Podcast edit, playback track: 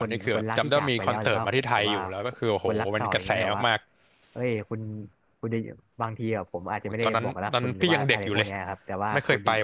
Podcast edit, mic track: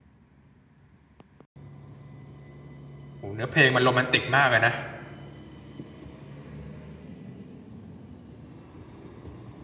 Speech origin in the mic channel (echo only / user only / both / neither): user only